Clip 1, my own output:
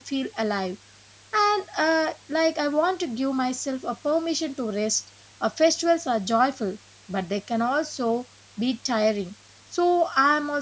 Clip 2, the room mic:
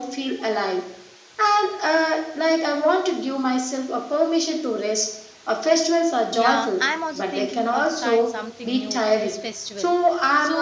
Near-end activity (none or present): present